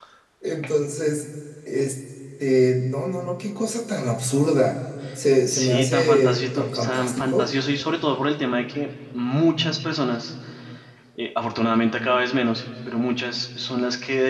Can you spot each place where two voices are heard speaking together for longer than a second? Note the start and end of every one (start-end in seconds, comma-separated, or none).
5.5-7.5